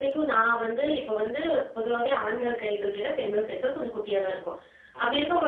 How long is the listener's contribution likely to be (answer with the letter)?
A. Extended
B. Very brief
B